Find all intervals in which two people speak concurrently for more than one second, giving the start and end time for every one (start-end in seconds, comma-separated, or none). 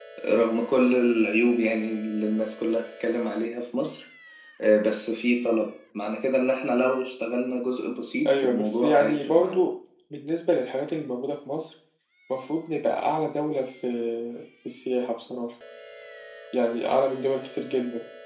8.2-9.7